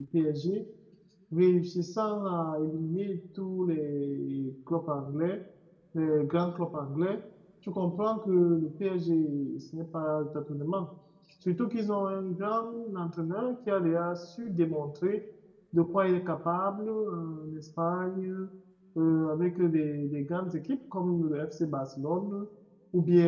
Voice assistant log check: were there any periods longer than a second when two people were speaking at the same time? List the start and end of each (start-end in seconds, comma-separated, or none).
none